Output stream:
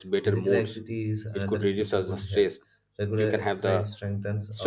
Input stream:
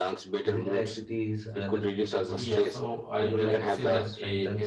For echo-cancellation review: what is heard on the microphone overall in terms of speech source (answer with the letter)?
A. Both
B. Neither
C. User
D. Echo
A